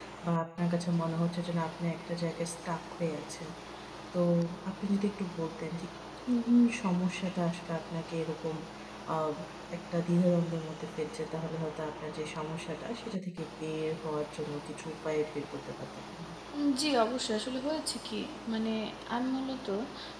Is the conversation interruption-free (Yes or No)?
Yes